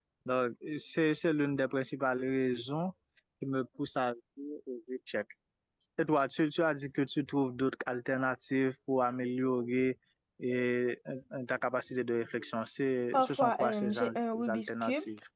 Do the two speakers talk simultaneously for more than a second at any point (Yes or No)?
Yes